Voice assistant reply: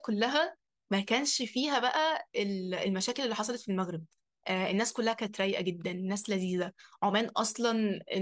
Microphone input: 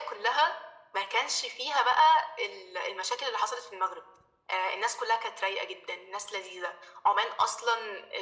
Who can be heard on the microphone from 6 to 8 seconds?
echo only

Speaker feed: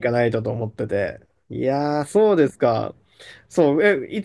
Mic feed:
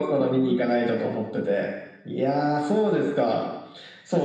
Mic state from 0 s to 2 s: echo only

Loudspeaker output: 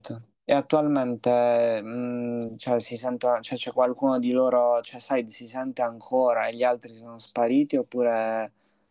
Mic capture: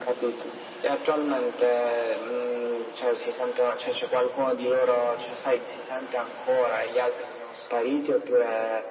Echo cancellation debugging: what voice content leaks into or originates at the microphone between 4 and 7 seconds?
echo only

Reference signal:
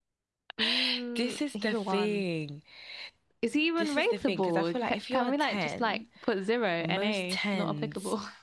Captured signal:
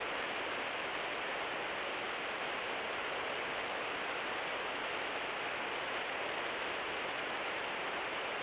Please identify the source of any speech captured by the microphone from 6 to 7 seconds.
neither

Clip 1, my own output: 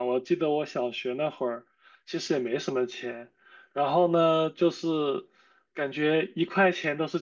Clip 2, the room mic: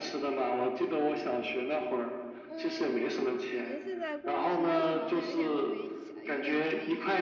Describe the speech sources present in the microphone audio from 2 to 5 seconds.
both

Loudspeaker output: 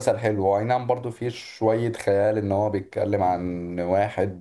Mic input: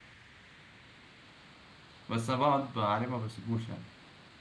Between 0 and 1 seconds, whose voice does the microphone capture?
neither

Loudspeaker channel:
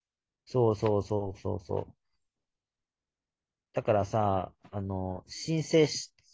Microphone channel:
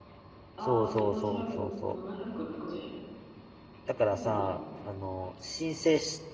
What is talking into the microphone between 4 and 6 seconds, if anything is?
both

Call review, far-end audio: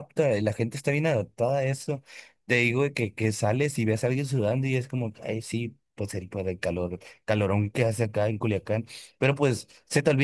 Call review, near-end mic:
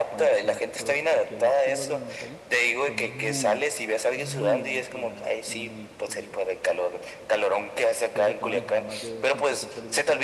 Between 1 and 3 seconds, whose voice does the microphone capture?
both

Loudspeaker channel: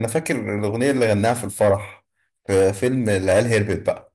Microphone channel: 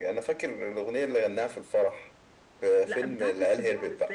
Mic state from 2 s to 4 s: both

